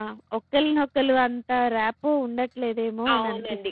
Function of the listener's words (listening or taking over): taking over